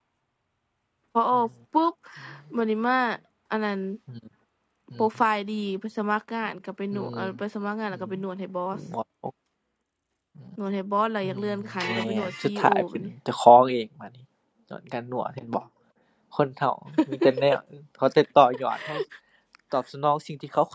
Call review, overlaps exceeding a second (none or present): present